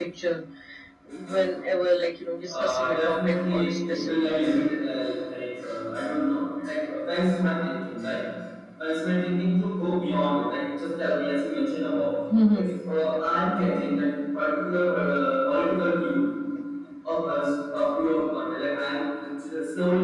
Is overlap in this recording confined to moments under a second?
No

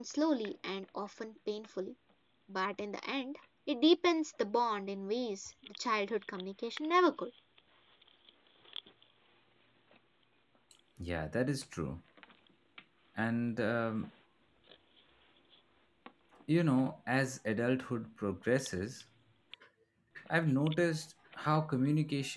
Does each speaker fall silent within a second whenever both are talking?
Yes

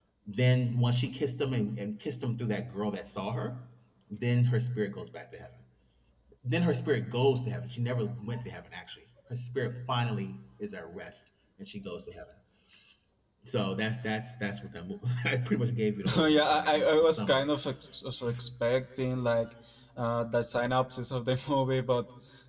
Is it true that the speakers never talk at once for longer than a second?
No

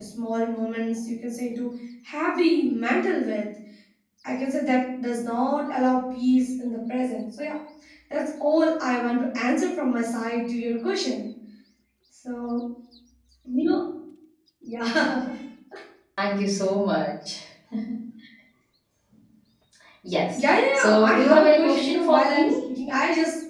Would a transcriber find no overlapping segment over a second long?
No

